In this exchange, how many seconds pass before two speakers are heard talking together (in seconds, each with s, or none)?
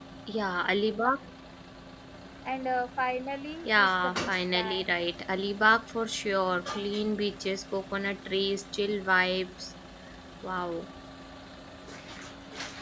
3.6 s